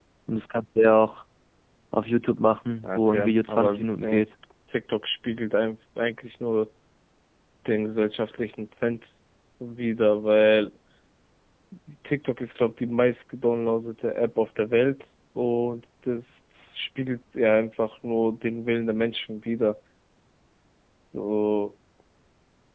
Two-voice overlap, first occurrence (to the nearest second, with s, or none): 3 s